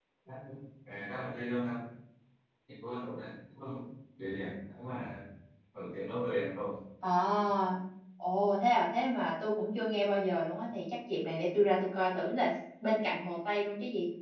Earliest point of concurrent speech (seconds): none

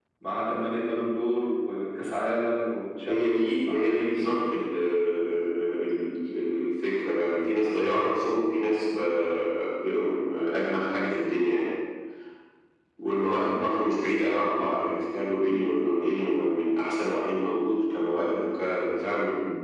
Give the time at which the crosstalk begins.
3 s

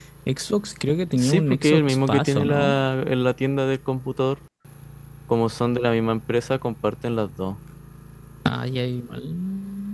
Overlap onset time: 1 s

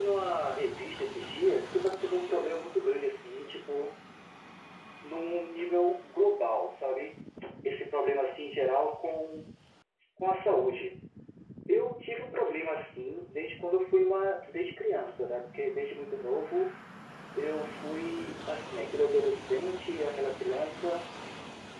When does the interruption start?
none

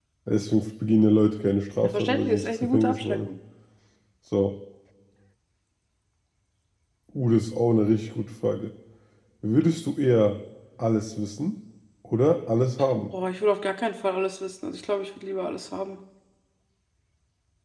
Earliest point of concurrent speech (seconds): 2 s

